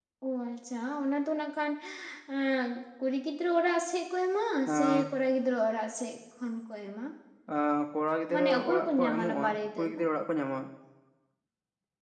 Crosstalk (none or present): present